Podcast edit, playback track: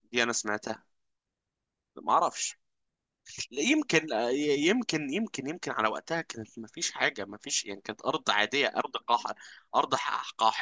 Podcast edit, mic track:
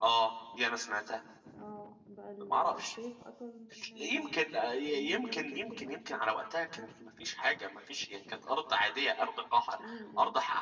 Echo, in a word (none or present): present